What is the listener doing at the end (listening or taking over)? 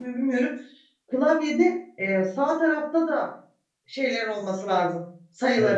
taking over